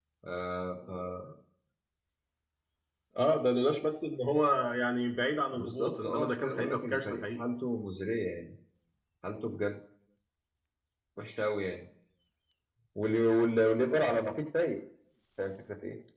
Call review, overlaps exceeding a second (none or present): present